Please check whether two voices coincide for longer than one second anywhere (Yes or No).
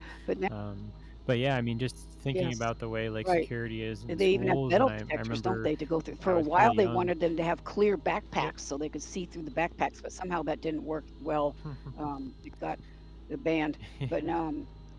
Yes